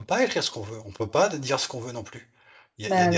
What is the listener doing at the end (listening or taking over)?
listening